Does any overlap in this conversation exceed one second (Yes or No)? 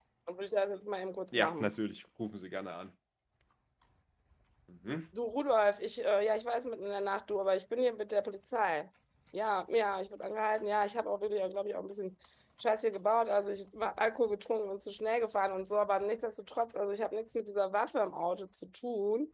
No